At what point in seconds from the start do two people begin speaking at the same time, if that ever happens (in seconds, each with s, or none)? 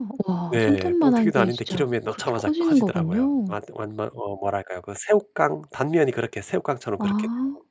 0.5 s